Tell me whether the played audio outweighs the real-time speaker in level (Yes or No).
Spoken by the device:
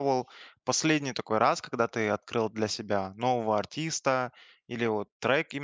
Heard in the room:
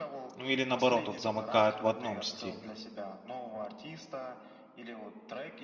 No